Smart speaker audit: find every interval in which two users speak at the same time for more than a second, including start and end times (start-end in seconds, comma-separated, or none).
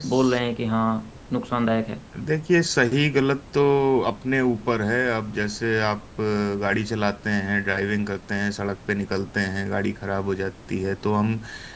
none